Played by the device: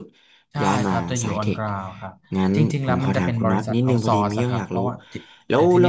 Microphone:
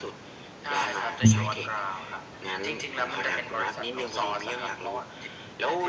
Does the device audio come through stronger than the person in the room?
No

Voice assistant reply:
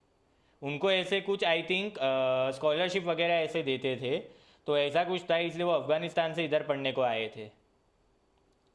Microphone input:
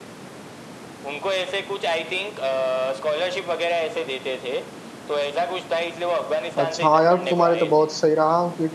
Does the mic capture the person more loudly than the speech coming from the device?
Yes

